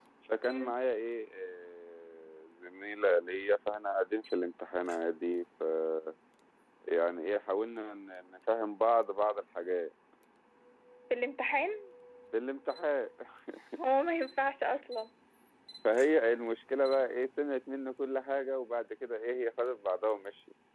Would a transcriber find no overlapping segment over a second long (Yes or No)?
Yes